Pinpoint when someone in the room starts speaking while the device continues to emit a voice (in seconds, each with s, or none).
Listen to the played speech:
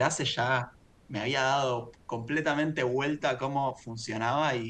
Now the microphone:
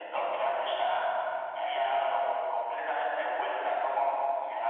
none